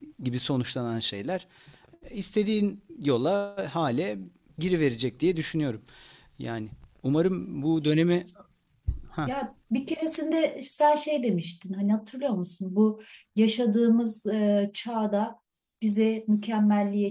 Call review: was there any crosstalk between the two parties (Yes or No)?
No